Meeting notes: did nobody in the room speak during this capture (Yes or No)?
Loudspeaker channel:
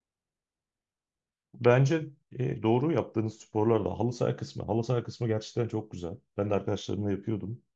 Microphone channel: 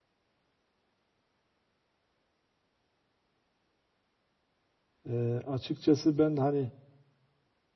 No